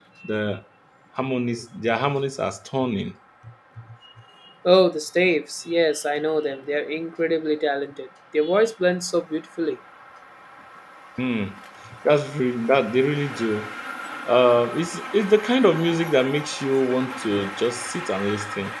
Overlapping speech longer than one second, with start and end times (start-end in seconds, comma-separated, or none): none